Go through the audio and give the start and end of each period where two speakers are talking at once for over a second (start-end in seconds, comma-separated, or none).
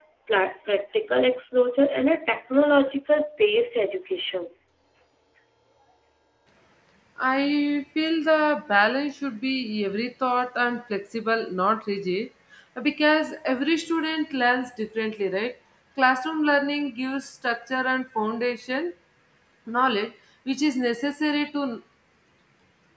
none